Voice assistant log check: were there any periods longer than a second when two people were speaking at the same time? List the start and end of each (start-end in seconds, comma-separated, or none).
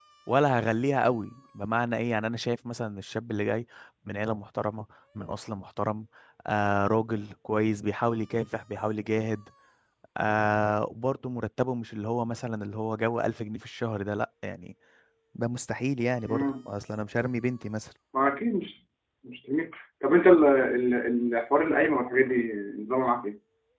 none